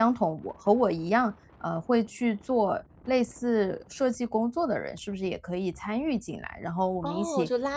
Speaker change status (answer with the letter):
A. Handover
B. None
A